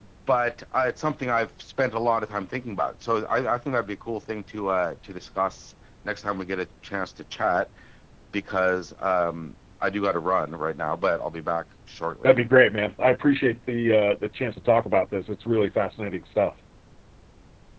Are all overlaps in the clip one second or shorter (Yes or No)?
Yes